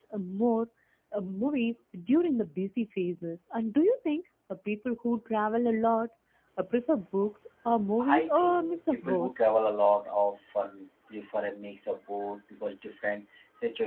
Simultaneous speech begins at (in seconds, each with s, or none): 8.0 s